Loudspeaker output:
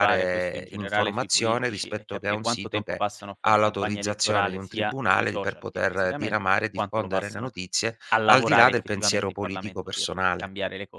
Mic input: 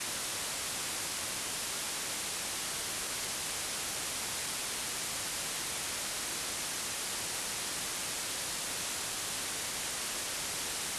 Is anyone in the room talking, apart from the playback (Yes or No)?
No